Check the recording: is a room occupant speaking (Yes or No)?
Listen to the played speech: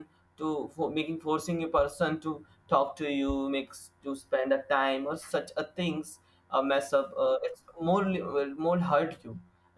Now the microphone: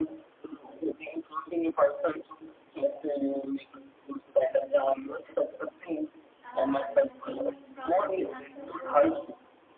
Yes